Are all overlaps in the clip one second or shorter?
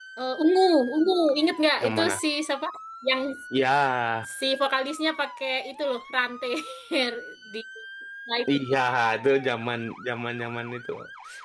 Yes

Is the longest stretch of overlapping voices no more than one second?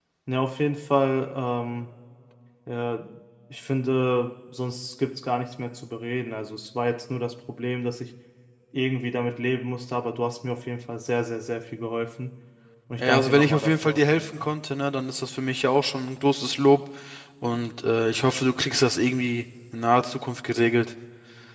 No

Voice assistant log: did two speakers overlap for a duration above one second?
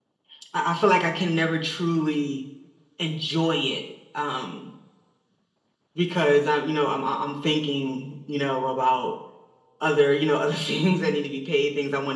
No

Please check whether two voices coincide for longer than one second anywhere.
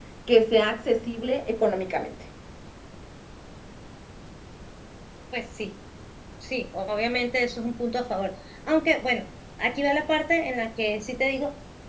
No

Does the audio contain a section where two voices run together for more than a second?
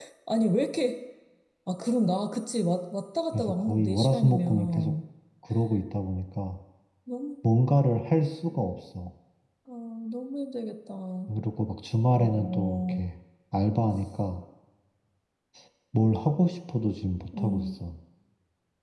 Yes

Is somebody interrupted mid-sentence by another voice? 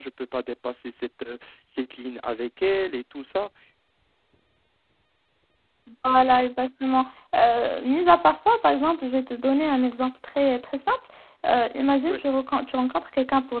No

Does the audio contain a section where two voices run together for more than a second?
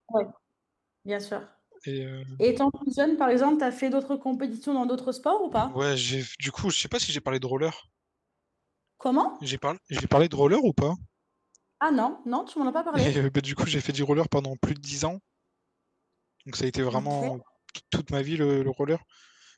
No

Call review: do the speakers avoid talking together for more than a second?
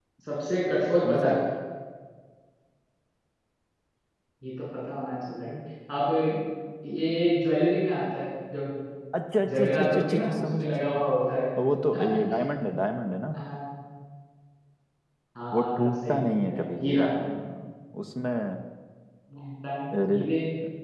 No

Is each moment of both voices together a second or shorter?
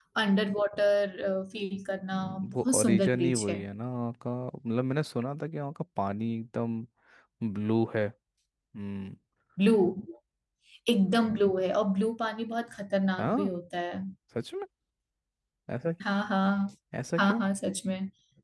No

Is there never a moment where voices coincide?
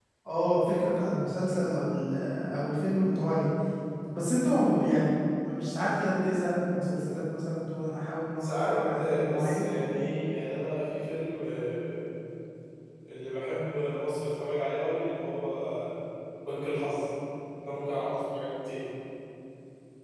No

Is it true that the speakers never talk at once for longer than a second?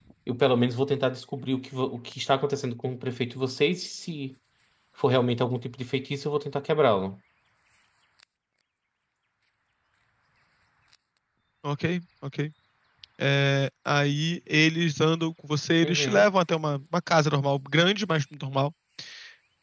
Yes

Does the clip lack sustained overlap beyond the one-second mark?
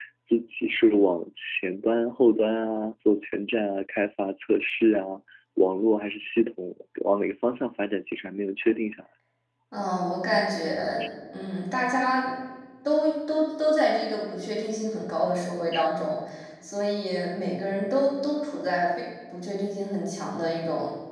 Yes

